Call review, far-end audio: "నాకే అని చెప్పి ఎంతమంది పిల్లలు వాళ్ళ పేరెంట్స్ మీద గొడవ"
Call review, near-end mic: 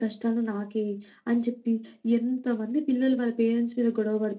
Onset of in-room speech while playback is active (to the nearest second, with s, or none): none